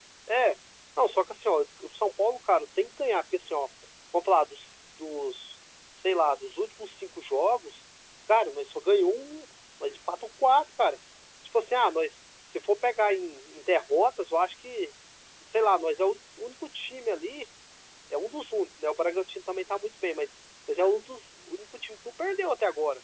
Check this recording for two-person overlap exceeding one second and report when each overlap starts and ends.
none

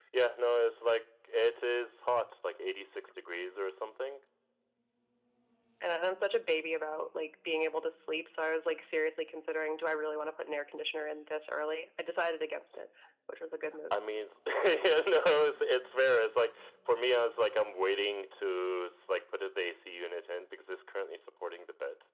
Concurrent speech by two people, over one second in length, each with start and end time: none

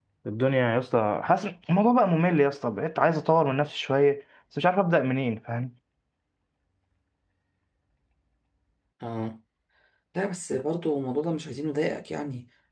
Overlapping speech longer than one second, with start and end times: none

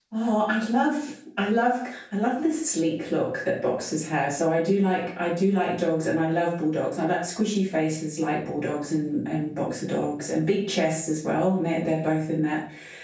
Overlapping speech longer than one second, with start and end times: none

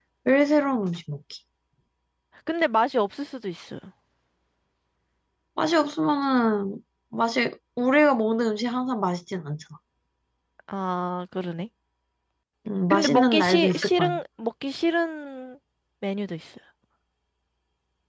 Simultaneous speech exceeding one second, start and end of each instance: 12.9-14.2

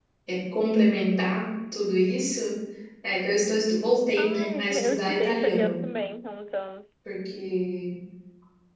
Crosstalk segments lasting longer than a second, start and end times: 4.2-5.8

